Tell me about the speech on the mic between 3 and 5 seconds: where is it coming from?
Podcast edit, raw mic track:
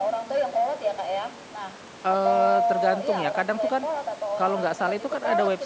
both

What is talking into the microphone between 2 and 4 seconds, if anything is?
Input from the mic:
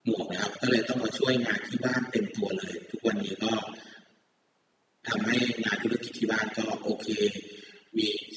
echo only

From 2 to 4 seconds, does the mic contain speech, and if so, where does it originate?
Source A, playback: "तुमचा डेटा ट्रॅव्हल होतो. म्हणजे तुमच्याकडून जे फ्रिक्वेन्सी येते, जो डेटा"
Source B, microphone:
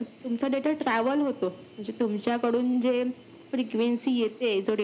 echo only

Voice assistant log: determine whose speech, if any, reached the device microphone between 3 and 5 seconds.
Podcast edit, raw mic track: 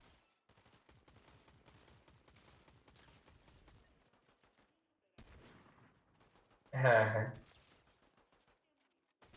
neither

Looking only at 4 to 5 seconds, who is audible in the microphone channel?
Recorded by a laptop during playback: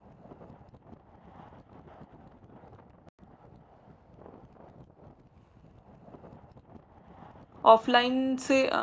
neither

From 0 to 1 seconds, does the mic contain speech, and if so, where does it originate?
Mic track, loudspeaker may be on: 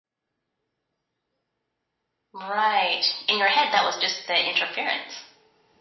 neither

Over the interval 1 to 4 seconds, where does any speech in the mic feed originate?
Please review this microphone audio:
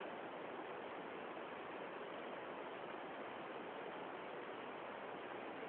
neither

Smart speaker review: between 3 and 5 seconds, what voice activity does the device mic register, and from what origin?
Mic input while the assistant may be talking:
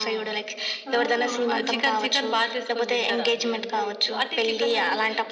echo only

